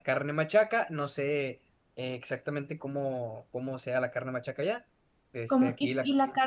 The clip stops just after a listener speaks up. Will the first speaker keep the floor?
No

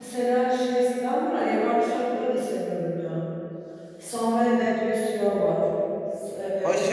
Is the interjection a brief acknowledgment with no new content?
No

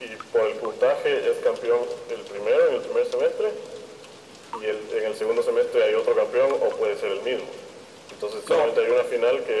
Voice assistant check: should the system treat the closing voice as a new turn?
No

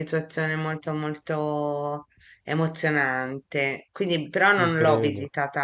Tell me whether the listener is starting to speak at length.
No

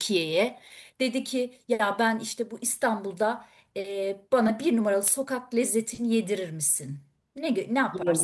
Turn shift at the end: Yes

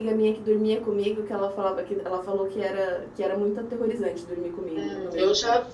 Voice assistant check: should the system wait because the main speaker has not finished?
No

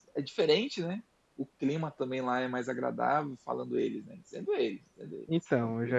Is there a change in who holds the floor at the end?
Yes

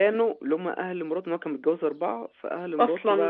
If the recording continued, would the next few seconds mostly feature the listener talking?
No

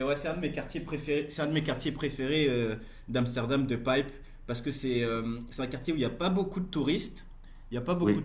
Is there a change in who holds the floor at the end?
No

